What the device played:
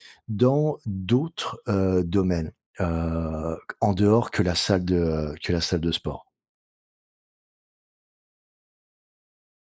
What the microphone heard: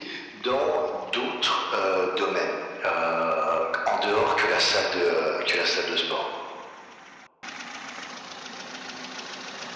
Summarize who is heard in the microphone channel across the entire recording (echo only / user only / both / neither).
echo only